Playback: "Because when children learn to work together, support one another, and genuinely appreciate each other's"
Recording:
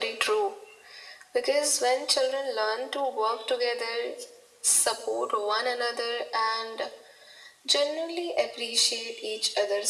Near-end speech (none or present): none